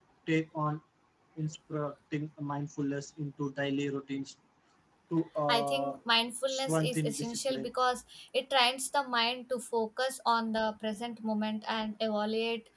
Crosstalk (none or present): present